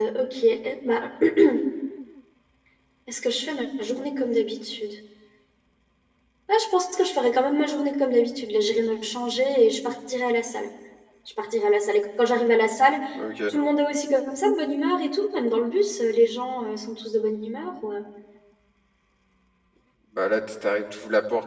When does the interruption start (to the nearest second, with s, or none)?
none